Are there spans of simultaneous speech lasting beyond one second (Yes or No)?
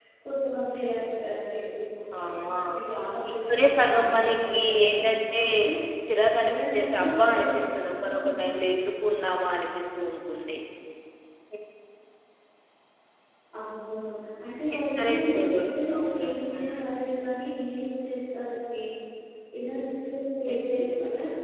Yes